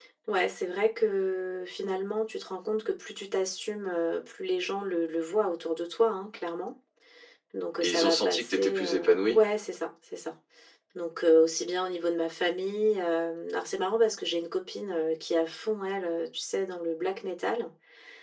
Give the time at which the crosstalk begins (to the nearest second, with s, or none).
8 s